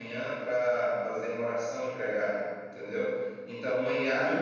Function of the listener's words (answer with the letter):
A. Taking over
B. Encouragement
B